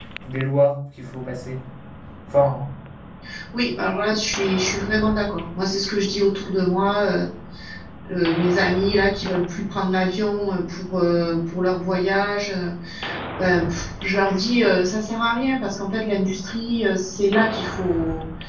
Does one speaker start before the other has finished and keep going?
No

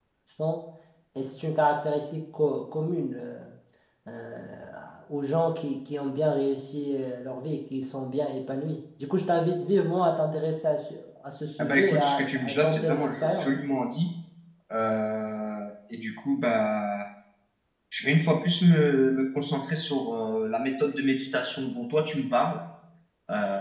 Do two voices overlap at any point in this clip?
Yes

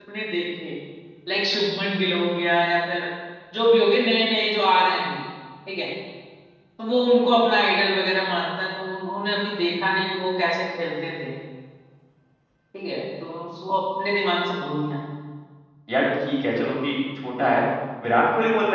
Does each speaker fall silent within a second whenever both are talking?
Yes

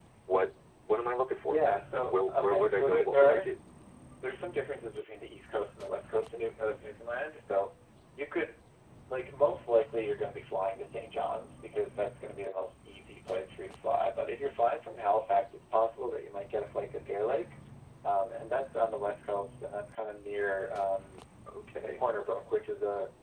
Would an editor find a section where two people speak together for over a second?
Yes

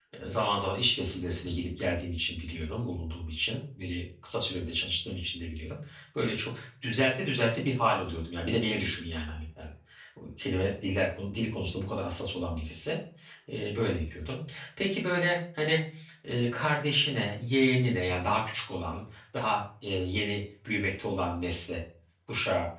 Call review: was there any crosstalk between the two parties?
No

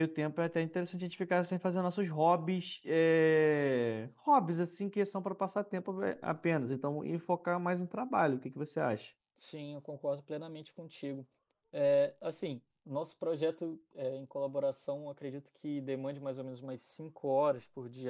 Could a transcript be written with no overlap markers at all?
Yes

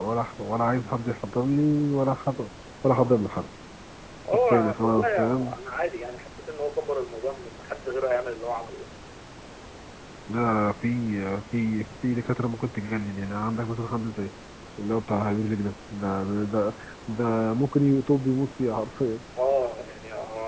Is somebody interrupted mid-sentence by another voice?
Yes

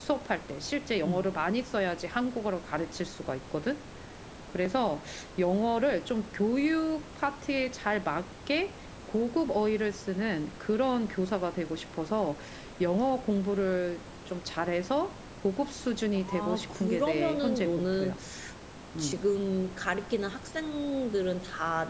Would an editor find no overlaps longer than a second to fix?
No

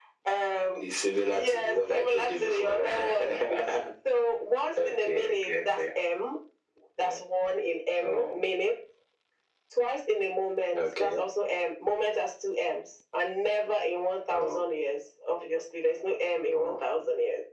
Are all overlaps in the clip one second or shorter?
No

